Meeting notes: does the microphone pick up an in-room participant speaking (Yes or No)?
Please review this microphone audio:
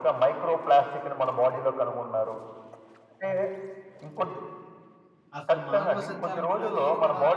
Yes